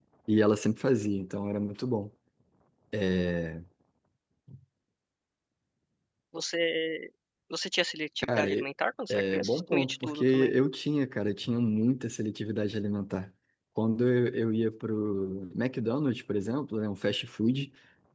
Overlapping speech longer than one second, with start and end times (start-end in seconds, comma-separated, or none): 9.1-10.5